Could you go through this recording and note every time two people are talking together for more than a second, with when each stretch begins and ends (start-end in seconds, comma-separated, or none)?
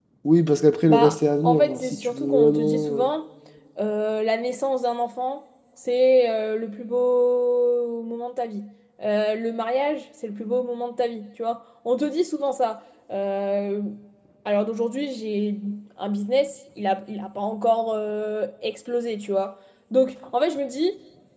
0.9-3.1